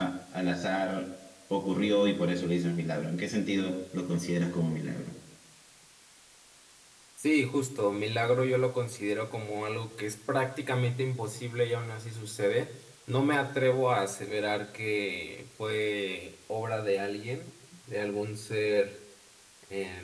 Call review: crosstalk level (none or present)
none